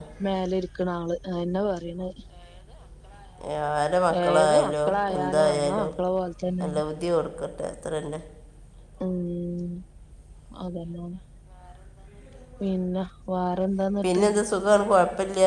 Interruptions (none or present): present